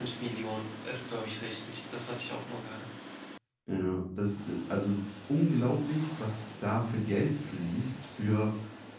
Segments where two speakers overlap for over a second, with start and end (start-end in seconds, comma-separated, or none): none